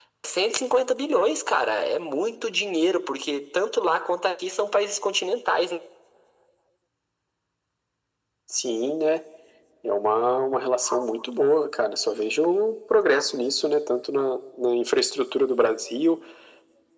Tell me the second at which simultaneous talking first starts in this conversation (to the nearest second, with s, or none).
none